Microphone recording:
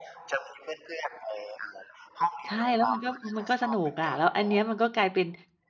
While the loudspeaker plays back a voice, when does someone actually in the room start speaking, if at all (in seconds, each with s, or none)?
2.5 s